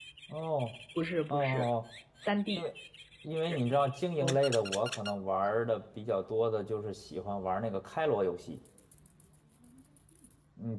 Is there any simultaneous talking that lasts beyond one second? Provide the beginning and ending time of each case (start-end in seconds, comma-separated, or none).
none